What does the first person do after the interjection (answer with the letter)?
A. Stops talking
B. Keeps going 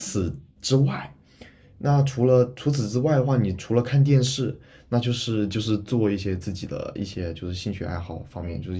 B